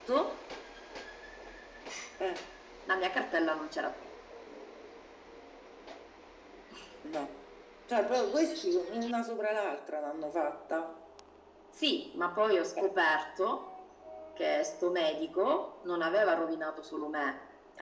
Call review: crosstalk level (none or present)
none